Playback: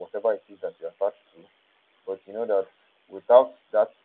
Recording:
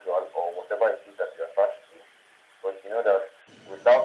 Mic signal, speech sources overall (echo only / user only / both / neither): echo only